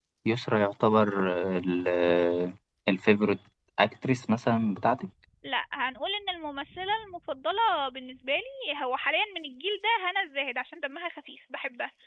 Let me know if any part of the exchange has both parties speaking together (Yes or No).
No